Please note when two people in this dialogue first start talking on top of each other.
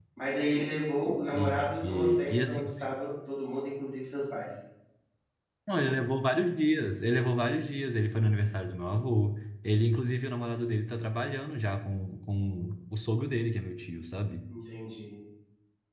1.3 s

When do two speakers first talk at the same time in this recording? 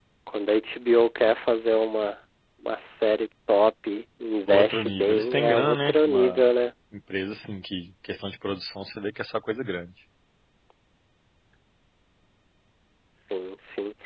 4.5 s

